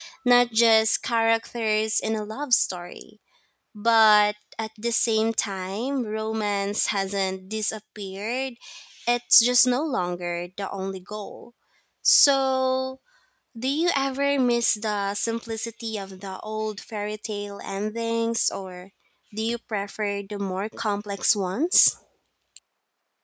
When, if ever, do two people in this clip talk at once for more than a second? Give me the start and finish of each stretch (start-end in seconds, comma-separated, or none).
none